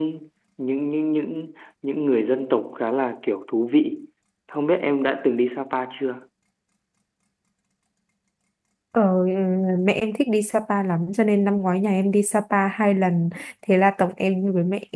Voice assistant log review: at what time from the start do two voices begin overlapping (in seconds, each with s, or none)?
none